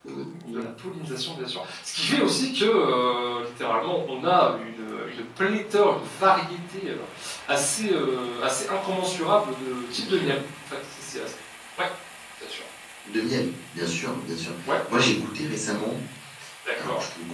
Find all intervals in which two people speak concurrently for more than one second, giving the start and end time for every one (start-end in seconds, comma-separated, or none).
none